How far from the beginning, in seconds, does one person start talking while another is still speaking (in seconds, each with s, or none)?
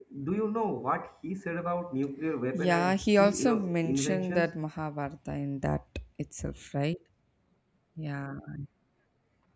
2.5 s